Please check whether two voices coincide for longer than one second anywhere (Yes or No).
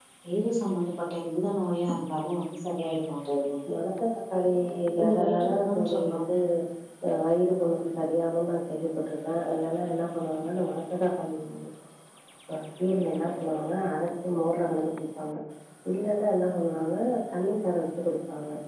Yes